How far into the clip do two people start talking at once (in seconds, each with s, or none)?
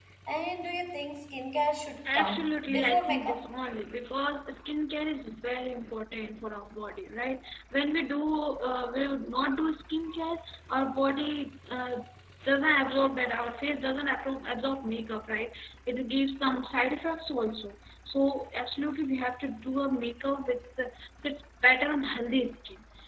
2.0 s